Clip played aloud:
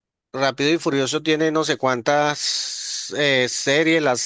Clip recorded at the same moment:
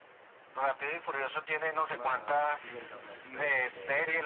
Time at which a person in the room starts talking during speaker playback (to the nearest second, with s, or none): 2 s